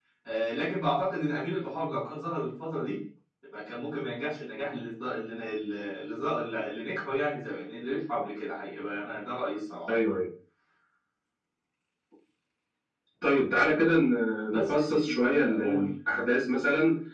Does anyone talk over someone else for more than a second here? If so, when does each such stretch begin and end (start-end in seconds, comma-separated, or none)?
14.5-15.9